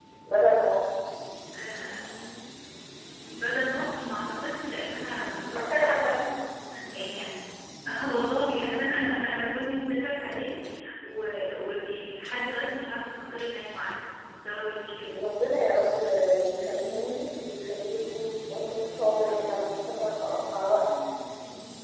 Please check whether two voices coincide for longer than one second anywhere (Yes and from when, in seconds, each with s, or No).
No